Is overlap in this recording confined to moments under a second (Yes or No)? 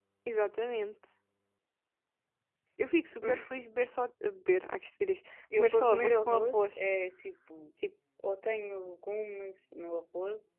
No